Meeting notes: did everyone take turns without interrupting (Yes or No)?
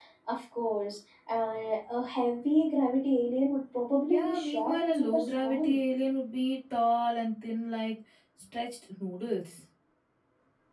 No